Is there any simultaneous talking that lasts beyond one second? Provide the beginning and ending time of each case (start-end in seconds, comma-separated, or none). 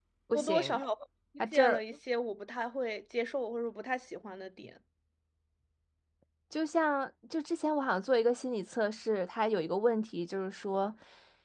none